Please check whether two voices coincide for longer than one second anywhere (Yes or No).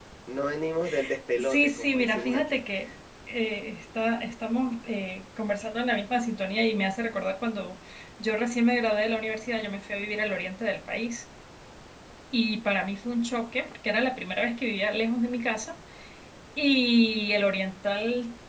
Yes